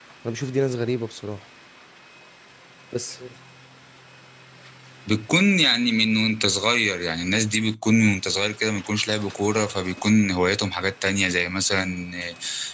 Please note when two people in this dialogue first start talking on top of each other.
none

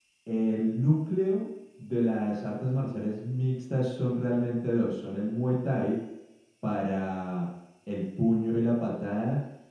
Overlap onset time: none

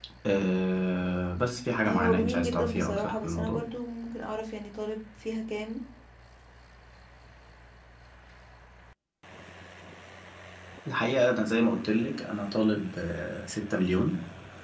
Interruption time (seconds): 1.9 s

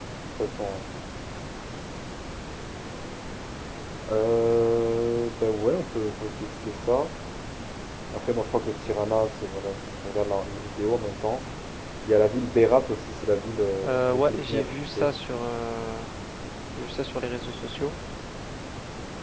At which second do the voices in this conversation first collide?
13.8 s

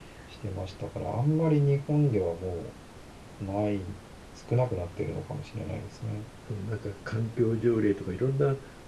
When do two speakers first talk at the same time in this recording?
none

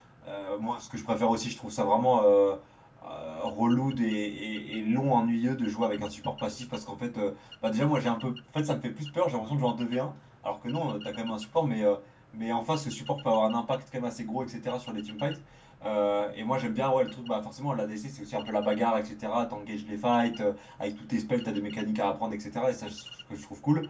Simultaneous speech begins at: none

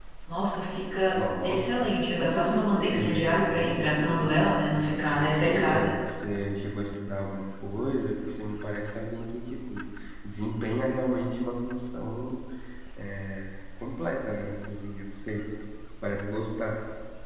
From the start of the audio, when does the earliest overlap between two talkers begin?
1.1 s

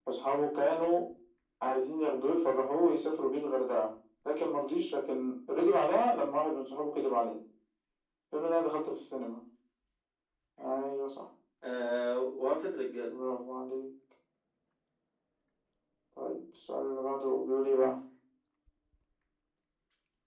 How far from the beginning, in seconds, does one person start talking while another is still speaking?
none

